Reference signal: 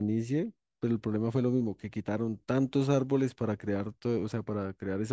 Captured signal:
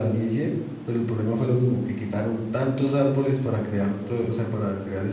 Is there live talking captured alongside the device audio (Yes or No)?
No